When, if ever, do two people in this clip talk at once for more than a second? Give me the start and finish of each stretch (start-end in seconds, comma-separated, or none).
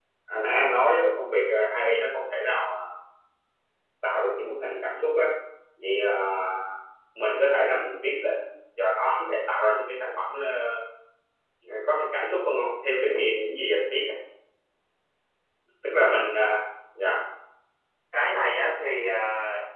none